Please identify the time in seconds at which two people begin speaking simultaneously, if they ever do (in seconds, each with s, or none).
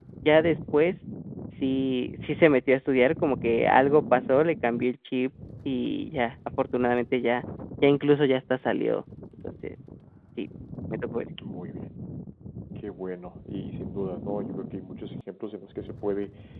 none